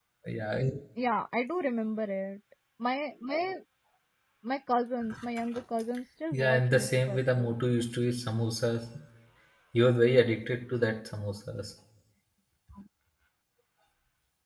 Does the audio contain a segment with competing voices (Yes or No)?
Yes